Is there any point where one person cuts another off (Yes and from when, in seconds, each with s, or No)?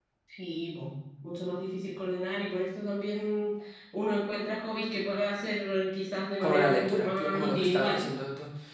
Yes, from 6.4 s